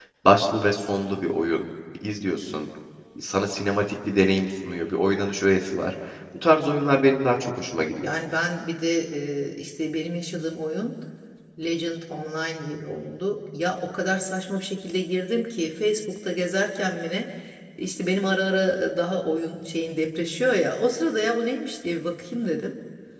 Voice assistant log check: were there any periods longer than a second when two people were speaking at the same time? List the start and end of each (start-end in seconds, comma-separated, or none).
none